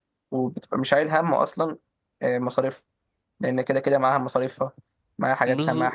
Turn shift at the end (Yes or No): Yes